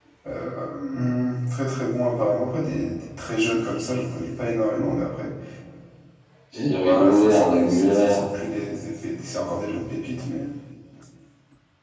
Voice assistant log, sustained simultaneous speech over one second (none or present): present